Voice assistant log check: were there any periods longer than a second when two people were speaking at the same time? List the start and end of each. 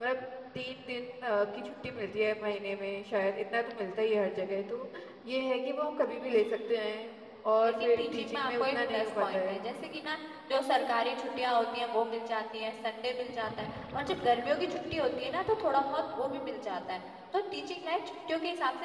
7.6-9.6

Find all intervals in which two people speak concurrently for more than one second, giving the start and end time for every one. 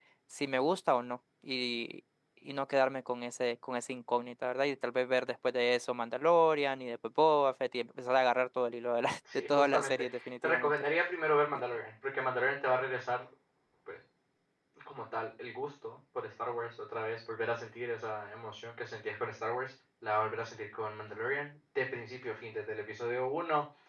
9.3-10.7

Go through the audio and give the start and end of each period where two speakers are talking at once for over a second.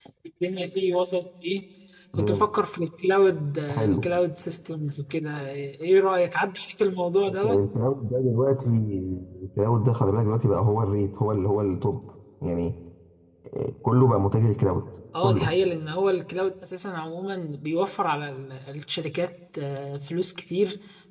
none

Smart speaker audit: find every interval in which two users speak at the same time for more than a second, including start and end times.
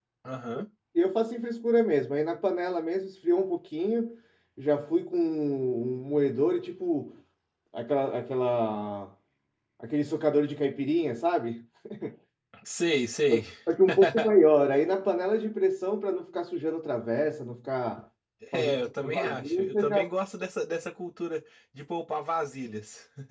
18.5-20.0

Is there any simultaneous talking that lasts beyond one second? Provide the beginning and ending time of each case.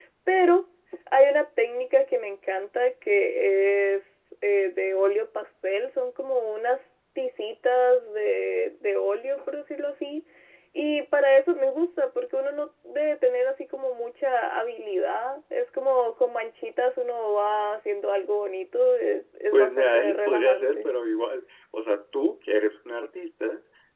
19.5-20.9

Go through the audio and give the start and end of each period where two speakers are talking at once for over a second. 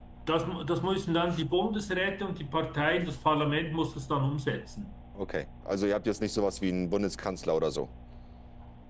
none

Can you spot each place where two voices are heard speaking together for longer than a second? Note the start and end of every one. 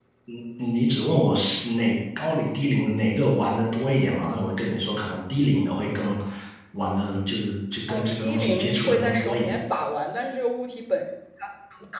7.9-9.5

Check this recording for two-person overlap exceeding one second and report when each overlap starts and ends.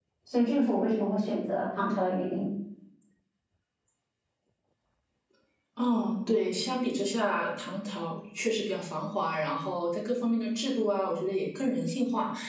none

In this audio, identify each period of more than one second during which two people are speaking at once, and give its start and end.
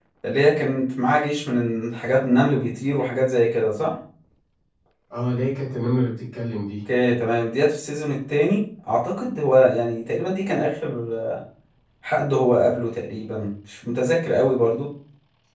none

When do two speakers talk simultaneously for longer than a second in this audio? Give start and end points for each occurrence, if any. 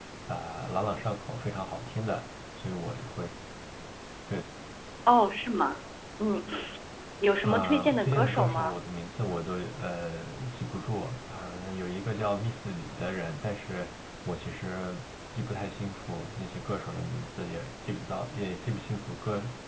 7.4-8.8

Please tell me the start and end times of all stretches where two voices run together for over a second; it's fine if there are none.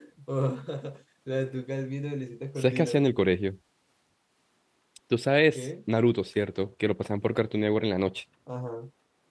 none

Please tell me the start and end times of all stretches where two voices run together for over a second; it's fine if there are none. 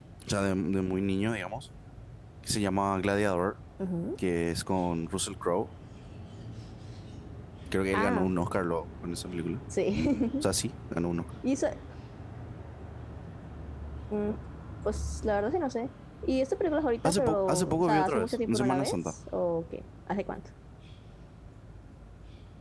17.1-19.1

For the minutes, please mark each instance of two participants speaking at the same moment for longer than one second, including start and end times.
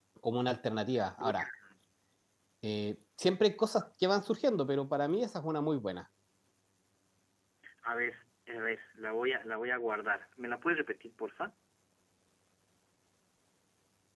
none

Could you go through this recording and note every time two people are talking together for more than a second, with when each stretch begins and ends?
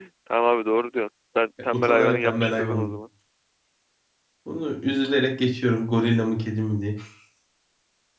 1.7-2.9

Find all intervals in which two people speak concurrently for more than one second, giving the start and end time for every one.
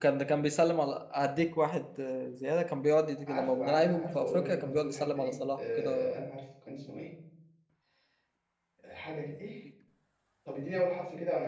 3.3-6.3

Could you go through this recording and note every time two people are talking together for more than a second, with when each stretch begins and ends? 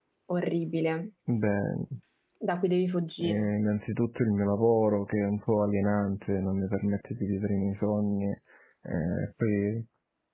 none

